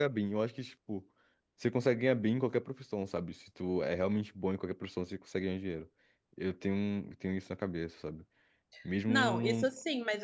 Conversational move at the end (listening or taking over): taking over